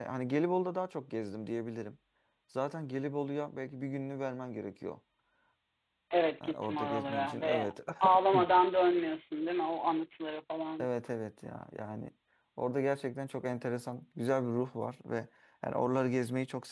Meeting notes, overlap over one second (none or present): present